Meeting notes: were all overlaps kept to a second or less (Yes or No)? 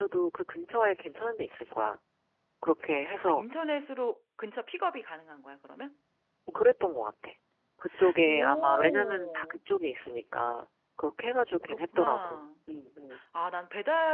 No